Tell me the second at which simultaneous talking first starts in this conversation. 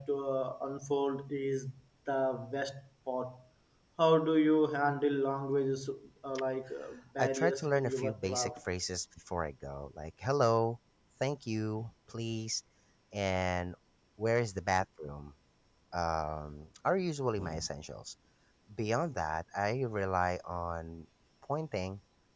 7.2 s

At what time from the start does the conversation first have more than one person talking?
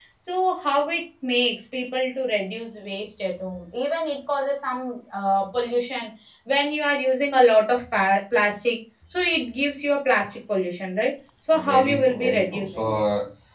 11.5 s

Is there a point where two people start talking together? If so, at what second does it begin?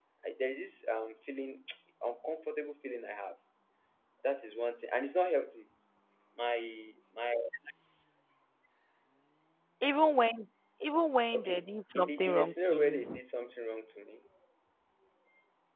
11.3 s

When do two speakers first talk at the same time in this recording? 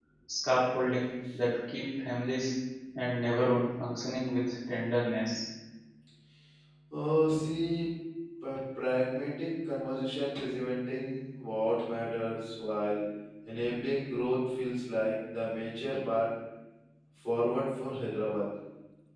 none

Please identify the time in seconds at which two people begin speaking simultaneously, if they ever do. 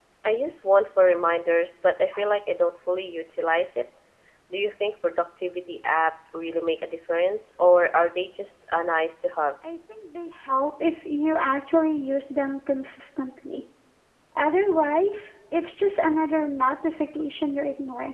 none

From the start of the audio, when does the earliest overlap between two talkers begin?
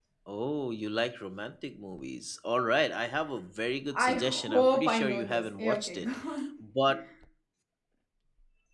3.9 s

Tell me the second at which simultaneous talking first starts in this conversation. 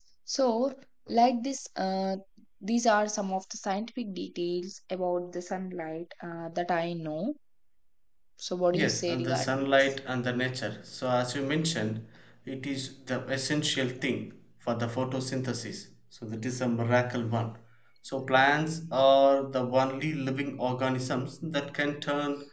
8.7 s

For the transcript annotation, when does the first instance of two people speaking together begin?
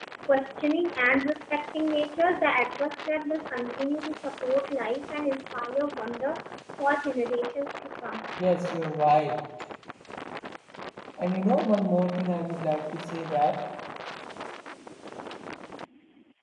none

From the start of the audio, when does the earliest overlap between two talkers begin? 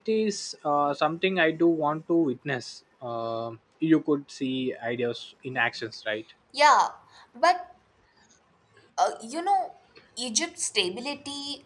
none

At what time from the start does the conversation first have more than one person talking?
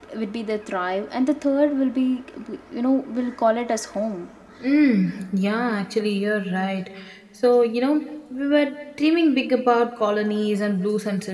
none

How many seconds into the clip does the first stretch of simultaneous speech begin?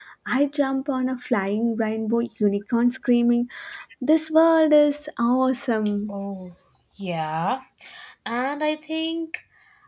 none

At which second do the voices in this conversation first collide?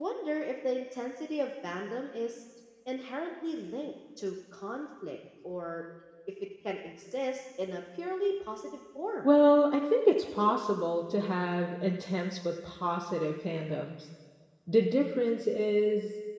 none

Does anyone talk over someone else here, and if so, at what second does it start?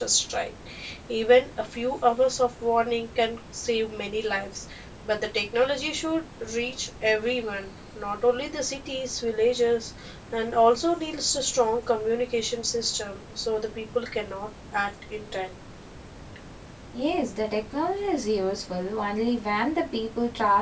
none

